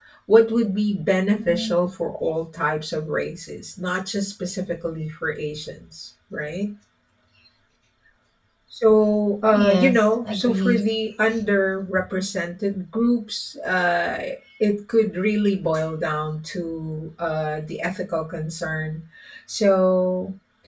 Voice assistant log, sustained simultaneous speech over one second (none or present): present